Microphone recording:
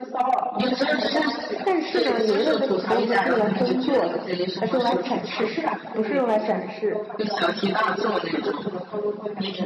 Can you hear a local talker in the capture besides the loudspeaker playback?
Yes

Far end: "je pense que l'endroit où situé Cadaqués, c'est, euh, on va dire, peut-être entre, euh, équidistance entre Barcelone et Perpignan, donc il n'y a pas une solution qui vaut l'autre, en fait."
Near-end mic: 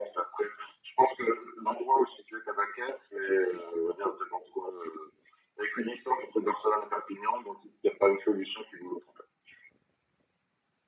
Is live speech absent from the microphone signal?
Yes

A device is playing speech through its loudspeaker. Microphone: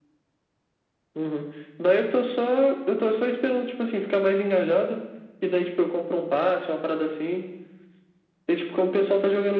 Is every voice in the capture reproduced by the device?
Yes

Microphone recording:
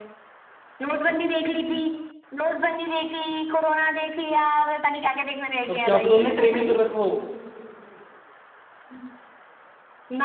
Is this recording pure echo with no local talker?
No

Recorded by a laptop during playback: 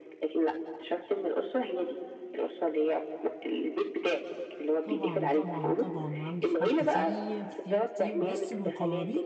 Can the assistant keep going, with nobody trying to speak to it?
No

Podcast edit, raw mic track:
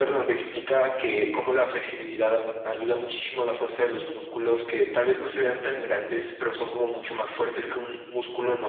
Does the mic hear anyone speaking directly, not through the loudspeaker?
No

